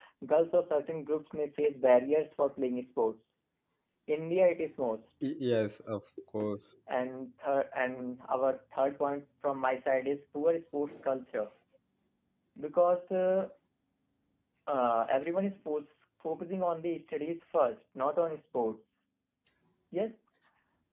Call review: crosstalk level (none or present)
none